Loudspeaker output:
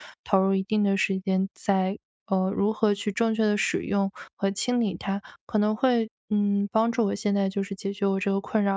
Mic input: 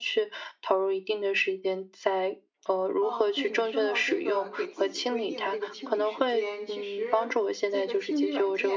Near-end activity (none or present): present